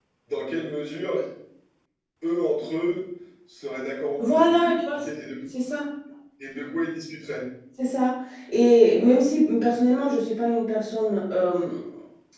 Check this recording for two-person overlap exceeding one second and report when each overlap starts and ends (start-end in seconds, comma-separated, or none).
none